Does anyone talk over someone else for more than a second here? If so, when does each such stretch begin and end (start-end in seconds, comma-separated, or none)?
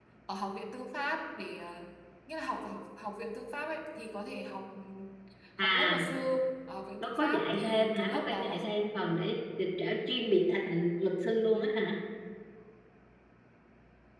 7.0-8.6